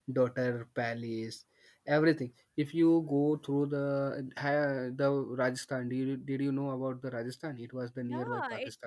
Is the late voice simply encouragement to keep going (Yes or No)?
No